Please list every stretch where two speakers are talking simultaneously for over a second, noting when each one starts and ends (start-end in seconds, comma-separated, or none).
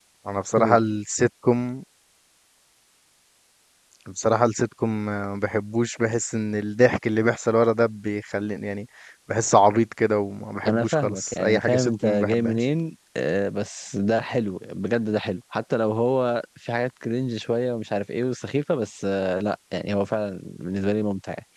10.7-12.6